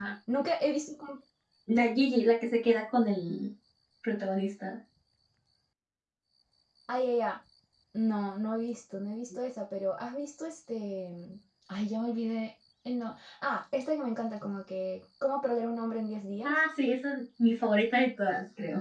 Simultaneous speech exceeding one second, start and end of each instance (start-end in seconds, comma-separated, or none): none